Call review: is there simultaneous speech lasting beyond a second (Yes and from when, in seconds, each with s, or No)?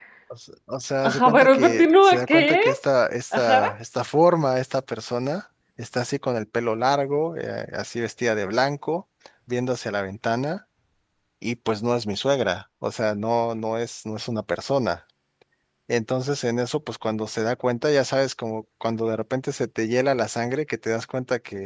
Yes, from 1.0 s